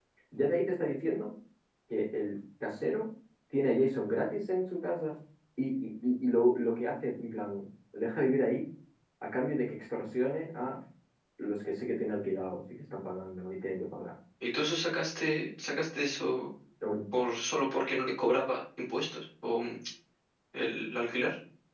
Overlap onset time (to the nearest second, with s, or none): none